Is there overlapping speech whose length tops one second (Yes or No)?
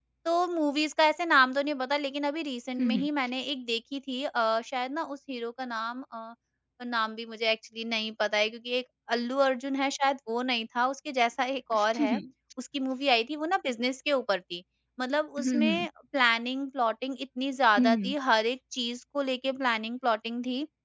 No